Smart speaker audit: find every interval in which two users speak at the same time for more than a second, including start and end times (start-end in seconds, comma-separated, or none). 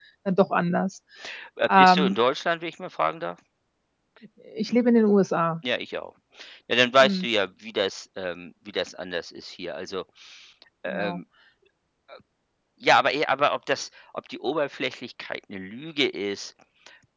none